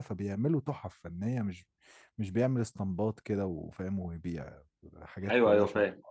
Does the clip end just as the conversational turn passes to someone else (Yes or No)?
Yes